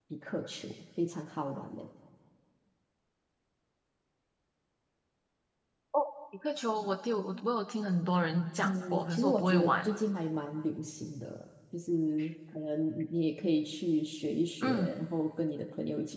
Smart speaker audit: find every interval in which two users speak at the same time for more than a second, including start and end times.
8.6-9.9

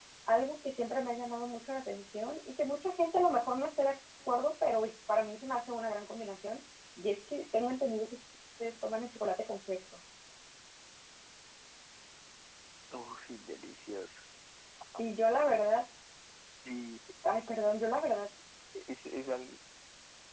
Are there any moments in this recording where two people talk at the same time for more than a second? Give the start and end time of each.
none

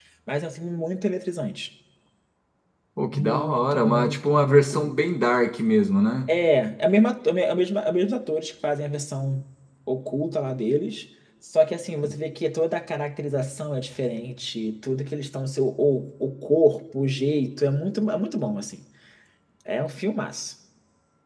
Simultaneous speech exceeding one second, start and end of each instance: 3.1-4.8

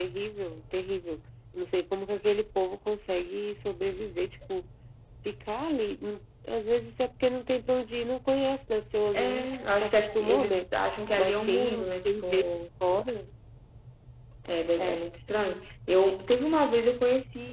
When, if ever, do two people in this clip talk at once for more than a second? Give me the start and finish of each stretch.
9.1-10.7, 11.2-12.6

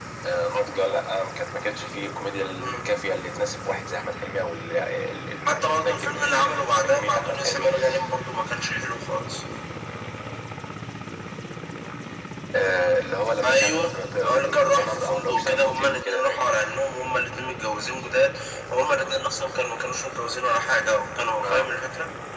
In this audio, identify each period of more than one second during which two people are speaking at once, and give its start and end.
5.5-7.7, 13.4-16.6

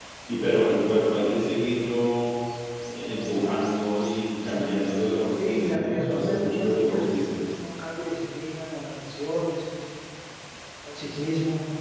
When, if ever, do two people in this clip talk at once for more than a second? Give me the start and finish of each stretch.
5.3-7.4

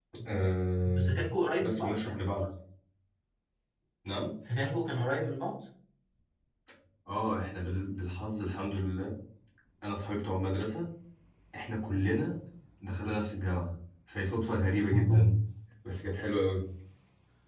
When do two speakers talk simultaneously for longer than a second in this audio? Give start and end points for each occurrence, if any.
none

